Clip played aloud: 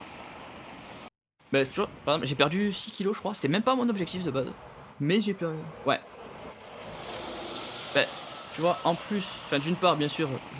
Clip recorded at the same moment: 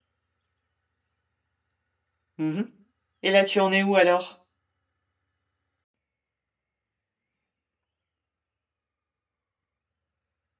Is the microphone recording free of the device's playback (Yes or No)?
Yes